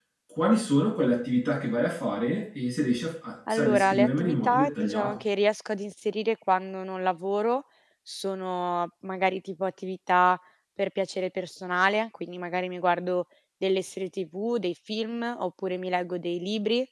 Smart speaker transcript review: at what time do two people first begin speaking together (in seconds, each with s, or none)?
3.5 s